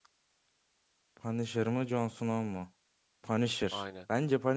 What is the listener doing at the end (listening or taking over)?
listening